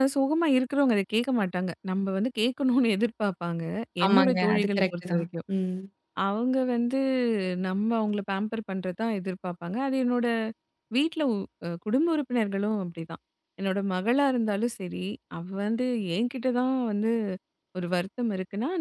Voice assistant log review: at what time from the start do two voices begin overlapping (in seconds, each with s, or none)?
4.0 s